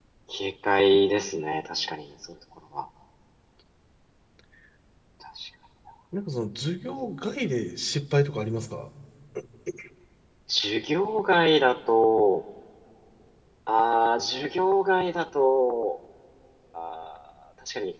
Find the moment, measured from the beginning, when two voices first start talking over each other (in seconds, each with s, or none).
none